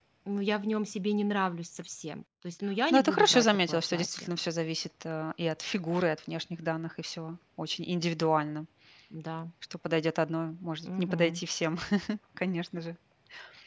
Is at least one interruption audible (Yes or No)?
Yes